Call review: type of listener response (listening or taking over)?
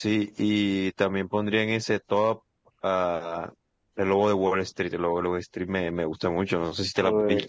taking over